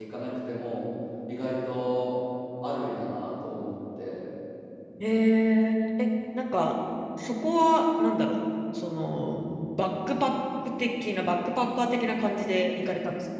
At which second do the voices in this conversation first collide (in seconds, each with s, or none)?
none